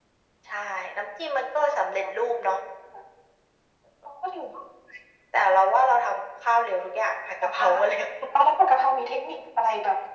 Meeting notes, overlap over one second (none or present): none